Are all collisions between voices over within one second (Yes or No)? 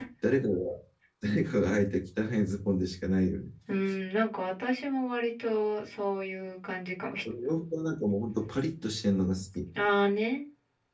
Yes